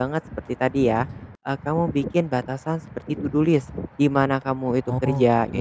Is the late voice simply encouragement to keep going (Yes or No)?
Yes